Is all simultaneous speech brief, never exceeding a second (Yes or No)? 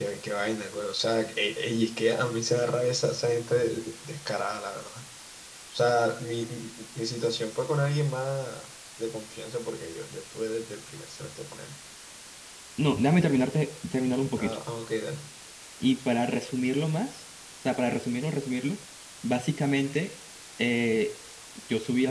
Yes